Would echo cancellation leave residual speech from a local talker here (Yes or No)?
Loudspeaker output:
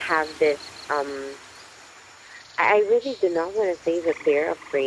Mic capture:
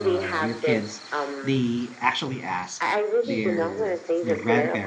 Yes